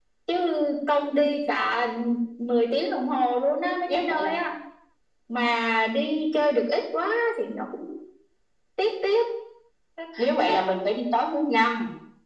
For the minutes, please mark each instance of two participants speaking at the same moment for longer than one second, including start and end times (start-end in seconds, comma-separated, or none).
none